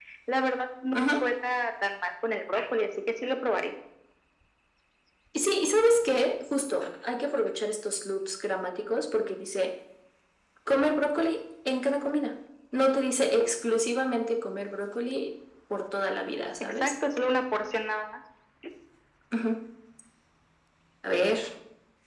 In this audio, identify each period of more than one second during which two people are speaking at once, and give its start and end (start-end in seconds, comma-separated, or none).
none